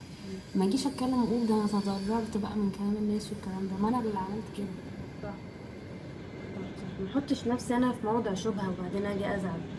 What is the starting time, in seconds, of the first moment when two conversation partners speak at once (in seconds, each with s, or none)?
none